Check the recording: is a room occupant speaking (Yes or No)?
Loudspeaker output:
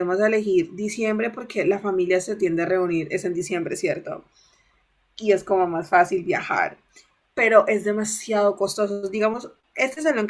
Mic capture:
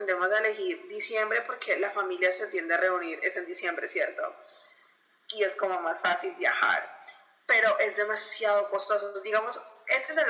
No